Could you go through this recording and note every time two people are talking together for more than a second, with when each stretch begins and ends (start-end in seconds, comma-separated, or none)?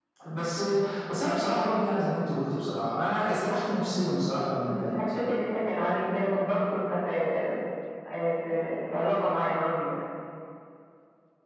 none